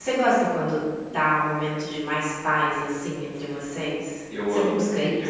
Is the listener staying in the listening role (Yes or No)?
No